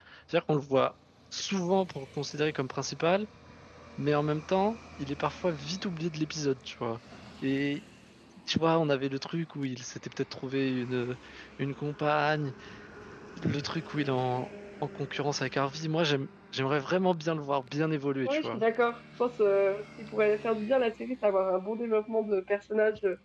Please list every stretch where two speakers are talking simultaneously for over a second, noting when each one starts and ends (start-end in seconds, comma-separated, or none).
none